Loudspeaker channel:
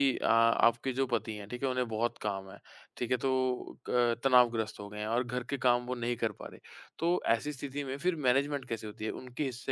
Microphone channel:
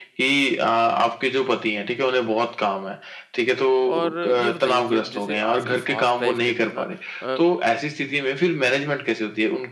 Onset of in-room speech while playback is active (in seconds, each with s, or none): 3.9 s